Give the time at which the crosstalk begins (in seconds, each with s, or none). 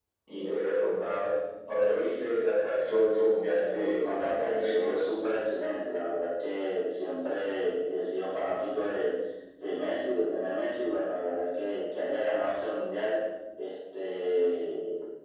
3.6 s